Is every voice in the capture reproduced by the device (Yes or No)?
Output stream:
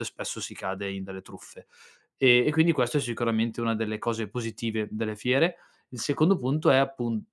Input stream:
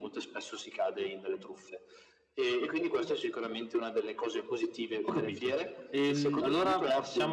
No